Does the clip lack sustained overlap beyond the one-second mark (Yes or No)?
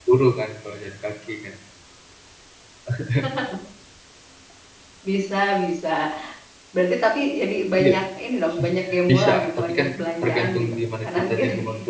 No